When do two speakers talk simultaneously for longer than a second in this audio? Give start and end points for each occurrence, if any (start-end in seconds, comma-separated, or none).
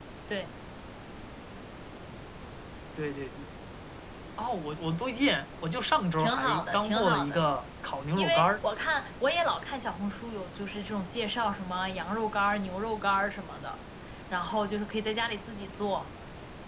6.2-7.4